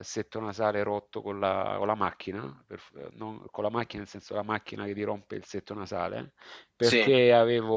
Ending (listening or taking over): listening